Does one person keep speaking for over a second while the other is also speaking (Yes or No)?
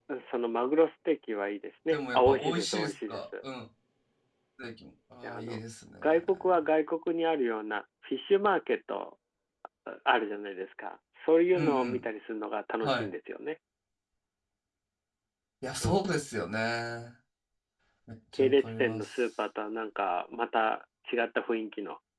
Yes